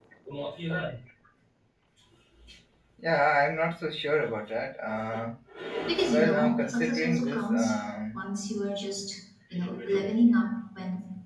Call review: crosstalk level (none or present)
present